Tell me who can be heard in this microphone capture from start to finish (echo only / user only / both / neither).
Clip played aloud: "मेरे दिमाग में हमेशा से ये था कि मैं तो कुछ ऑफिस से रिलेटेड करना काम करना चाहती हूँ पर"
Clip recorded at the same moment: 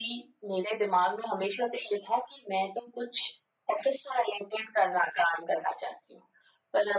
echo only